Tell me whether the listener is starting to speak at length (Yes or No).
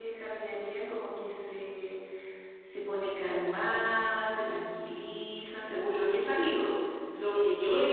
Yes